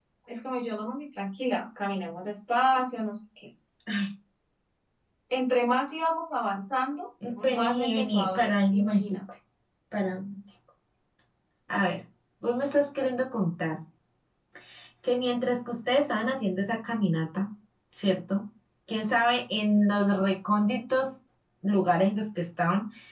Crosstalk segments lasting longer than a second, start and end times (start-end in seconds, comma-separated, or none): 7.4-9.2